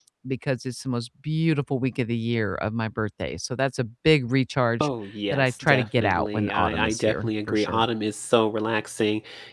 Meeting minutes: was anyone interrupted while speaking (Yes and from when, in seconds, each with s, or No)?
Yes, from 5.3 s